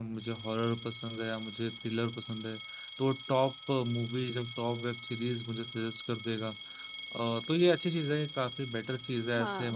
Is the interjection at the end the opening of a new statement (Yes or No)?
No